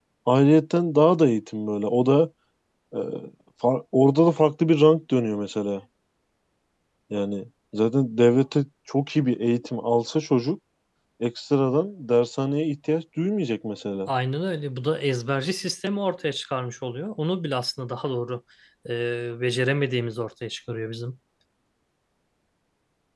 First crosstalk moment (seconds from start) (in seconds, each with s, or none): none